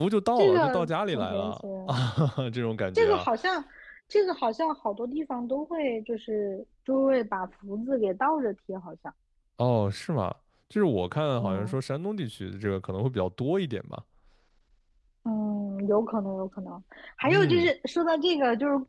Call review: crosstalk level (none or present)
present